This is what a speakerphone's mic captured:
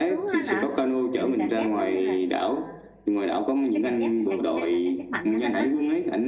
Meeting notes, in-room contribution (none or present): present